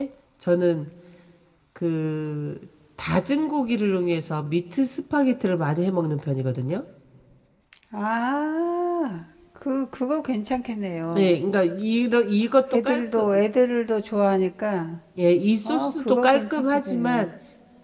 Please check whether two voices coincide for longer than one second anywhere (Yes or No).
Yes